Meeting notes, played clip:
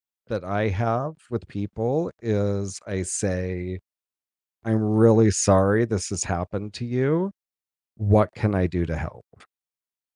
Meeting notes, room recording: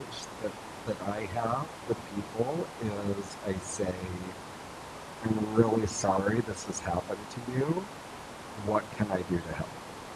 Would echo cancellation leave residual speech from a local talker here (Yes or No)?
No